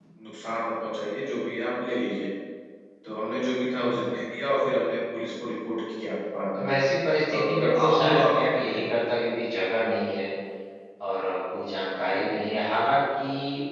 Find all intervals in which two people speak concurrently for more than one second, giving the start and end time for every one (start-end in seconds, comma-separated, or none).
7.3-8.8